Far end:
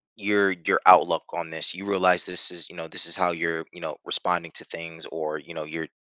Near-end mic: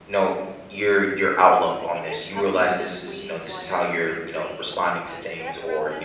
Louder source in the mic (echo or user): echo